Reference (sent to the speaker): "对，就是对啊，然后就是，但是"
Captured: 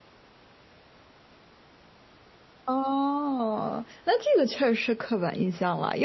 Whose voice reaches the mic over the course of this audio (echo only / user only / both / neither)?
user only